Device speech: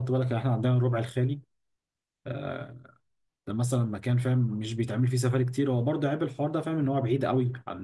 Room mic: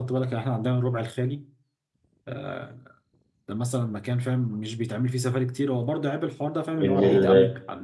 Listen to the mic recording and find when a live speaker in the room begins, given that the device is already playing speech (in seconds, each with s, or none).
6.8 s